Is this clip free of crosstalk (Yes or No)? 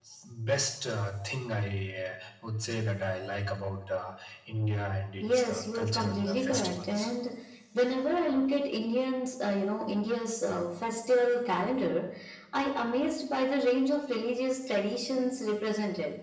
No